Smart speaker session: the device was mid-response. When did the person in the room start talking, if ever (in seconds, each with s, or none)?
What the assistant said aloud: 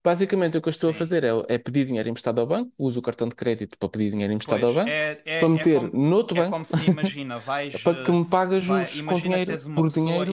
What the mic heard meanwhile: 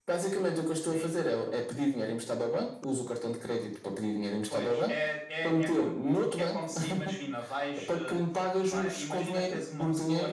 none